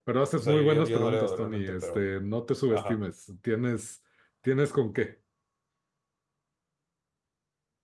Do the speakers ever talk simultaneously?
Yes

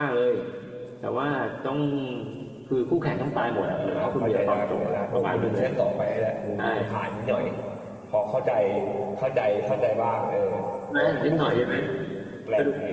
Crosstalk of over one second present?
Yes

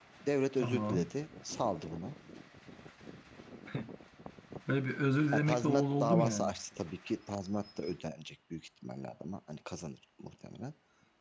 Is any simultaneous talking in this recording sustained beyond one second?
Yes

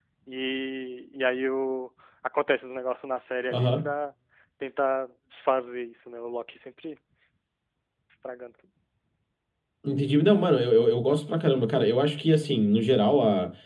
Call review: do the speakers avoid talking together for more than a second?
Yes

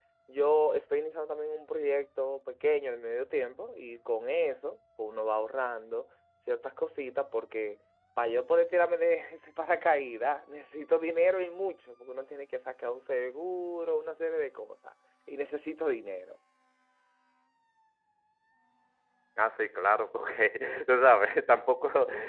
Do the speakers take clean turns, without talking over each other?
Yes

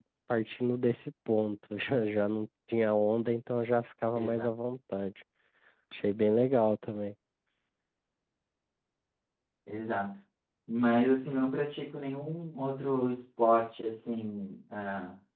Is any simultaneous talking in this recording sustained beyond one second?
No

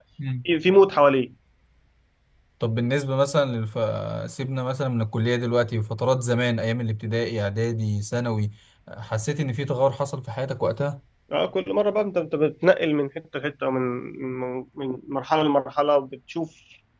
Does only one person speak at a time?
Yes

